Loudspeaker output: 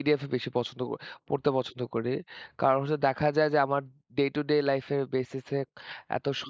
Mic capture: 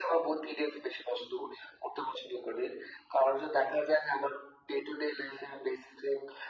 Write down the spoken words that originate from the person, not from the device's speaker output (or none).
none